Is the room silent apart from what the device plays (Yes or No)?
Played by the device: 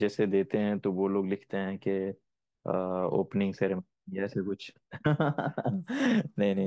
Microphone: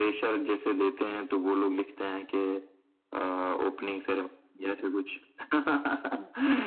Yes